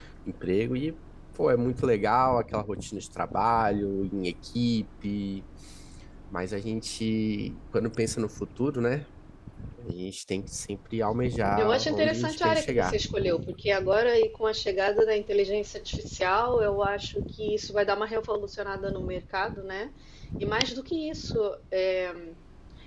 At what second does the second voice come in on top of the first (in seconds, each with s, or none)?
11.6 s